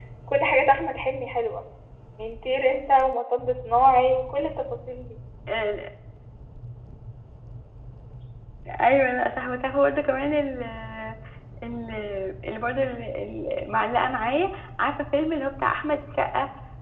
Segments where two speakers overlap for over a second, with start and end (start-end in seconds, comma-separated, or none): none